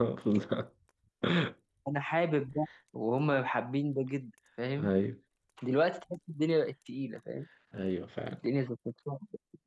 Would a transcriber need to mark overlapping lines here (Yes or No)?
No